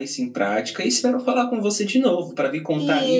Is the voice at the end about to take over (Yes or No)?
Yes